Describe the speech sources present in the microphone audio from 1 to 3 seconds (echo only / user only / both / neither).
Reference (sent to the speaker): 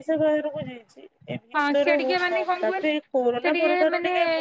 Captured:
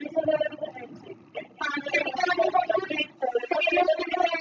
echo only